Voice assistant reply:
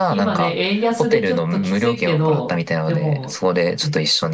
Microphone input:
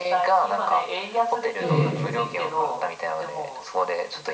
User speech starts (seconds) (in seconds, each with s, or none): 1.6 s